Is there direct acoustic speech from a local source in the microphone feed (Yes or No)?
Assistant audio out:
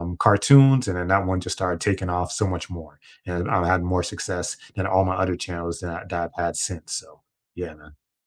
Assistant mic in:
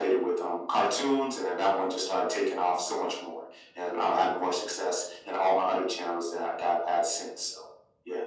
No